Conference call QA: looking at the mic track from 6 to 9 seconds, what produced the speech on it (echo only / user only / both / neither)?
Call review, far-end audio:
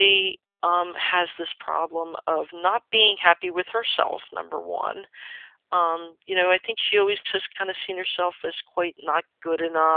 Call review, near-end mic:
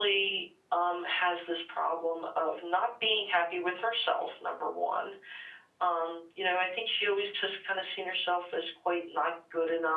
echo only